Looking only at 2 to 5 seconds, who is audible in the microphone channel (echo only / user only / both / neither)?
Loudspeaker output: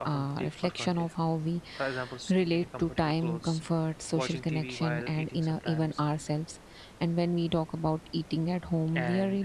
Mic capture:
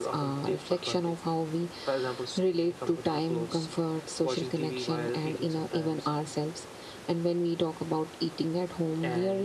echo only